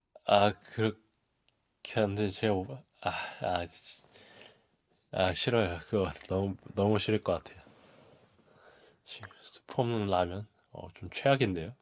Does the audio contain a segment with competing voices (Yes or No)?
No